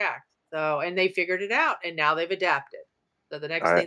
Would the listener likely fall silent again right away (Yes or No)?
Yes